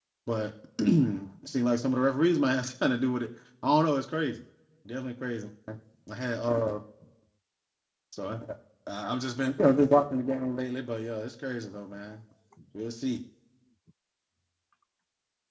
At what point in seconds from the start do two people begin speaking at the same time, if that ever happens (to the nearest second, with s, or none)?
none